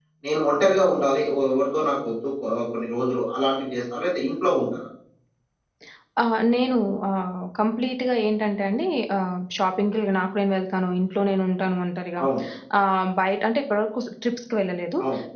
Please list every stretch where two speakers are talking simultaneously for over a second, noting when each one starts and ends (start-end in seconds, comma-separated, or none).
none